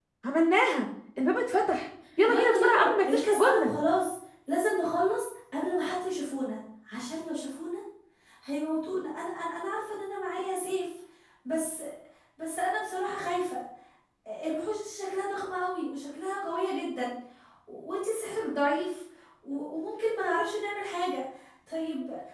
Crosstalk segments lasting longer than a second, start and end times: 2.3-3.7

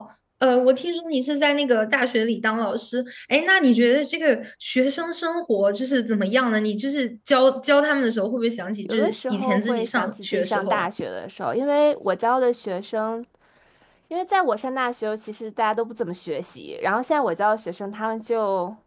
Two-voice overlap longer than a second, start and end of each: 8.8-10.9

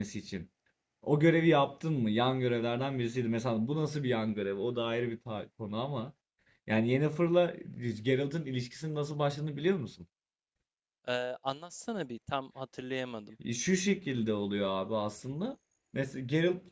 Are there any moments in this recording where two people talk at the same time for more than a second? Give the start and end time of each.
none

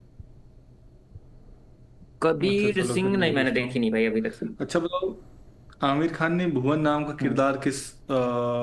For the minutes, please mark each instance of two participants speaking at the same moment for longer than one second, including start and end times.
2.5-3.8

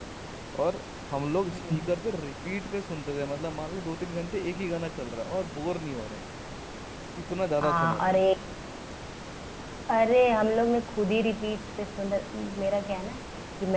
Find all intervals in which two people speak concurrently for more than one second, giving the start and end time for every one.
none

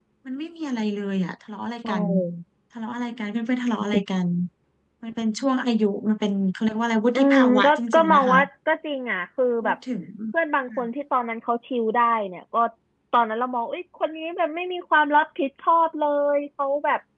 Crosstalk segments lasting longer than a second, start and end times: 7.2-8.4

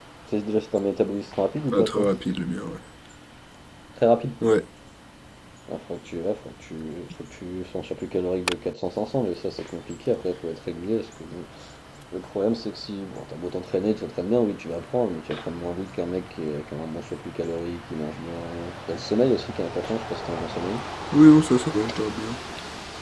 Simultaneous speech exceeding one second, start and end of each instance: none

